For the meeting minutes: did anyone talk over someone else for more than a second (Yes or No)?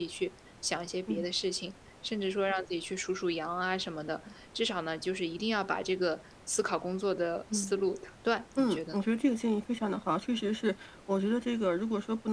No